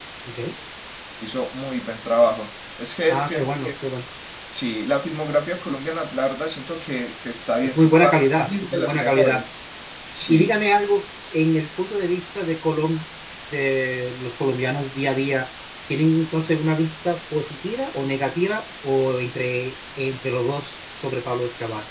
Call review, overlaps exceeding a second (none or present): present